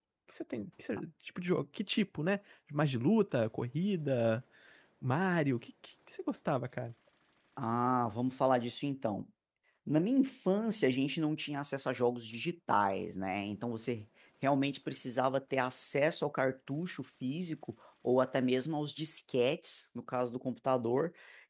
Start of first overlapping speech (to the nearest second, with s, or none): none